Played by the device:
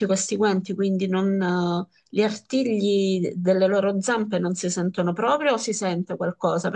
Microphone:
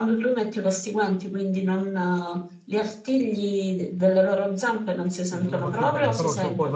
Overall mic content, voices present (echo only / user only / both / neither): both